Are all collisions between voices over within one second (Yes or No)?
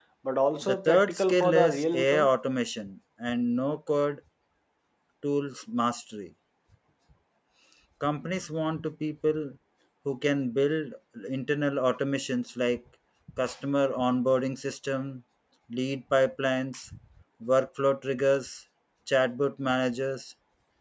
No